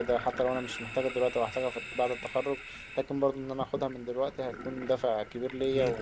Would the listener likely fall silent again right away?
No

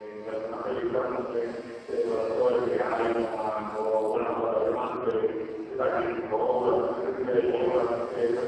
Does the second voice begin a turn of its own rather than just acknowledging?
No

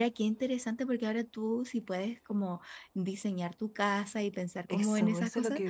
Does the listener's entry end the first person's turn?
Yes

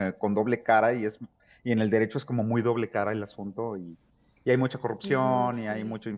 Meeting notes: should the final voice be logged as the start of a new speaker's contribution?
No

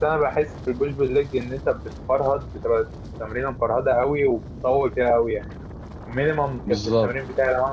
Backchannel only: Yes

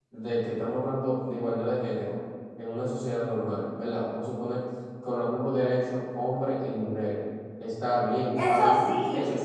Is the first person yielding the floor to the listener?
No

